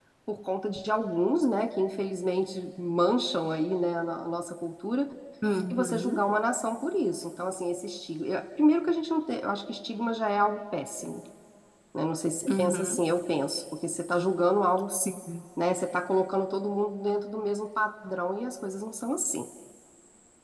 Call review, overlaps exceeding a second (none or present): none